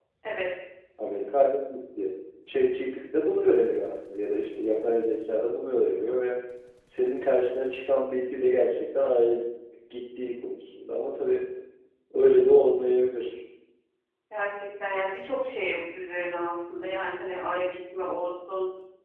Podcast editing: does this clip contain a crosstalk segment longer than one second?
No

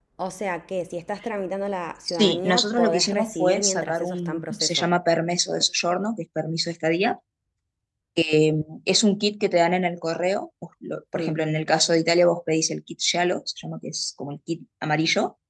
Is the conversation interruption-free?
No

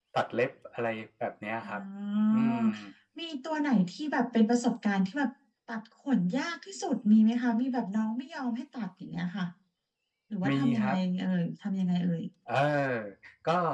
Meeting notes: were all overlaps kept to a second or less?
Yes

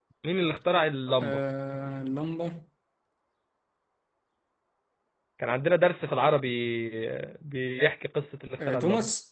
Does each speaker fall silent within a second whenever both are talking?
Yes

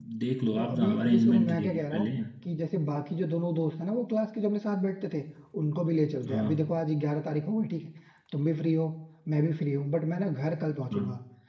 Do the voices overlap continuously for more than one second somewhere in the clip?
Yes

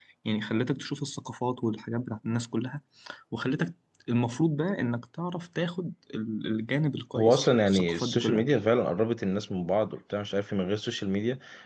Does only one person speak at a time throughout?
No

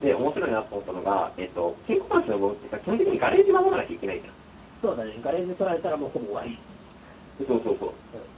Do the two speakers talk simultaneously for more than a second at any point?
No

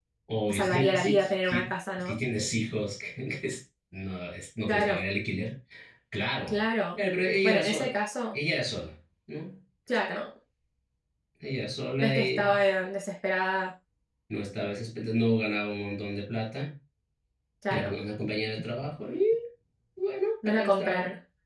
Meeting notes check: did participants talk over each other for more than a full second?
Yes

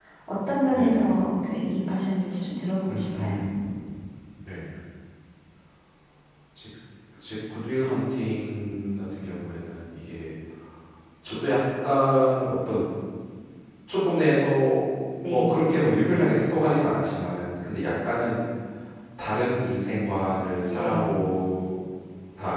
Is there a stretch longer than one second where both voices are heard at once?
No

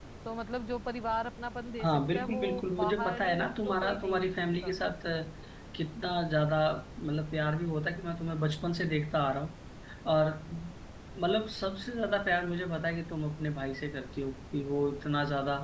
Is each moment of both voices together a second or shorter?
No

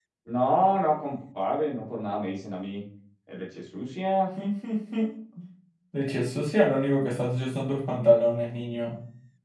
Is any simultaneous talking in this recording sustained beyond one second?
No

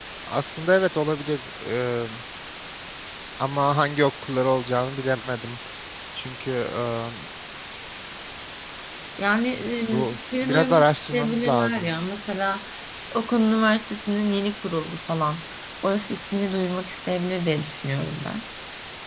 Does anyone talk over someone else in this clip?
Yes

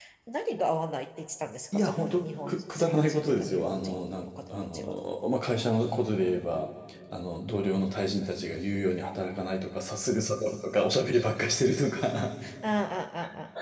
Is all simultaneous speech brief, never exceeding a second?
No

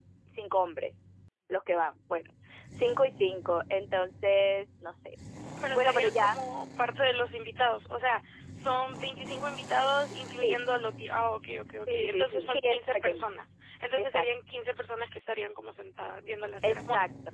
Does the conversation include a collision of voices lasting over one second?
Yes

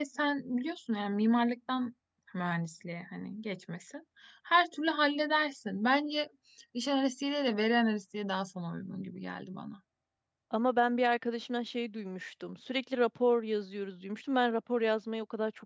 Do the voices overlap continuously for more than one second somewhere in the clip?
No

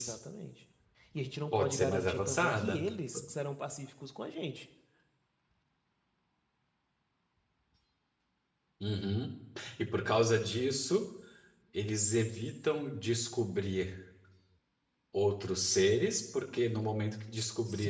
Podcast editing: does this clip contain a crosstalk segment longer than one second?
Yes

